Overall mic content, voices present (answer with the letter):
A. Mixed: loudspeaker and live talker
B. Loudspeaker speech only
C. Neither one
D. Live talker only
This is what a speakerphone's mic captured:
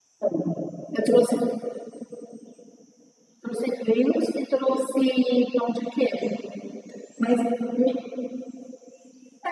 B